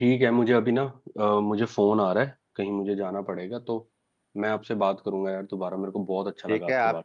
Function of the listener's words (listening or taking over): taking over